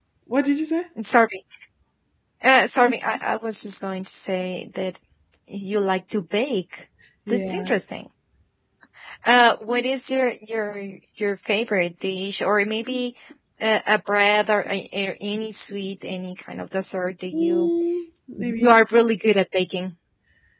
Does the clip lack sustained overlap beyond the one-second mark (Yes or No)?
Yes